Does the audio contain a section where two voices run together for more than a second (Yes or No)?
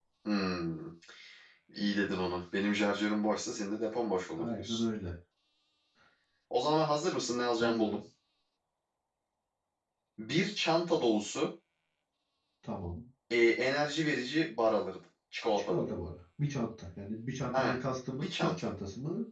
No